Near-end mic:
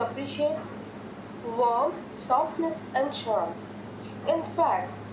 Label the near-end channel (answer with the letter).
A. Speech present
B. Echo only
B